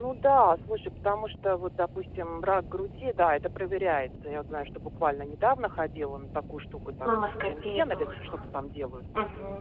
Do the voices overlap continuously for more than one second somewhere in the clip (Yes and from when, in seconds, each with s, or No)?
Yes, from 7.1 s